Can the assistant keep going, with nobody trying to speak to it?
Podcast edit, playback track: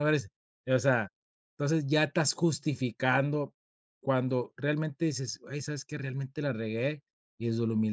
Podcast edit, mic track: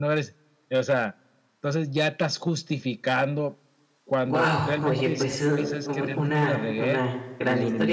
No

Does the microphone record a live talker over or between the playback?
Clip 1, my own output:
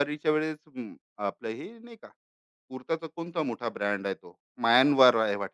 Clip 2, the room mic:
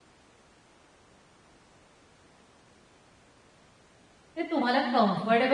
Yes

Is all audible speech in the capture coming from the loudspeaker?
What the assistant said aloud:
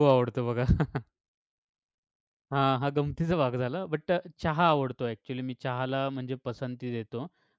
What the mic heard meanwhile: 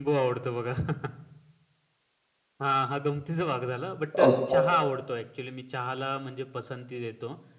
No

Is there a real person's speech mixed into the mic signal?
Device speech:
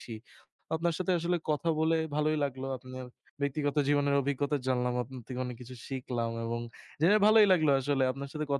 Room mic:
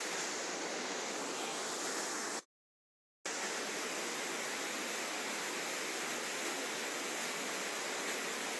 No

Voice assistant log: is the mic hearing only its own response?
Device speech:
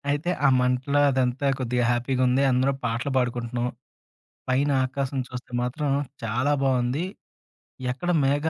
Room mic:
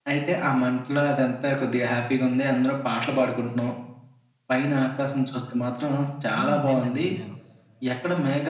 No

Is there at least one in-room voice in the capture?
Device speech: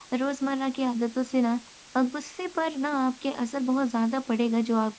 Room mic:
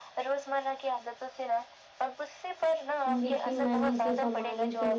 Yes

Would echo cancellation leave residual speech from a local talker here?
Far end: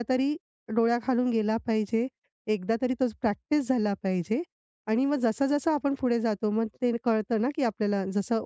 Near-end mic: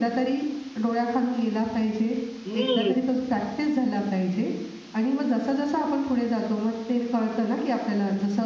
Yes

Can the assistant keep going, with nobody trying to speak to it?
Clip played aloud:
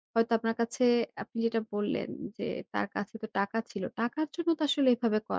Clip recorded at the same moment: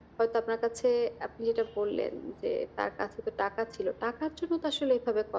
Yes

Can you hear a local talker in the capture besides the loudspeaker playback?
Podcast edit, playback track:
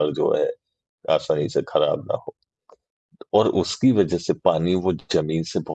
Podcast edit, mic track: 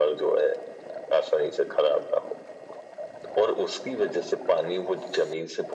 No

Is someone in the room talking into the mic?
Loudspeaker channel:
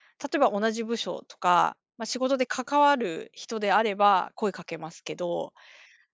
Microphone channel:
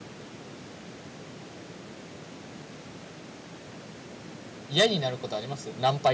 Yes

